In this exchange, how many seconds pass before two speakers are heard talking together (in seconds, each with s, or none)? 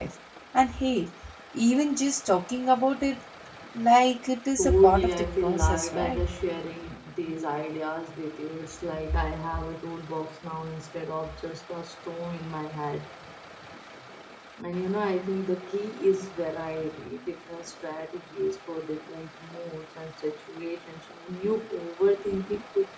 4.6 s